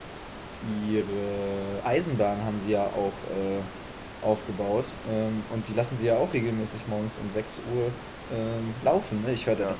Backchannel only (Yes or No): Yes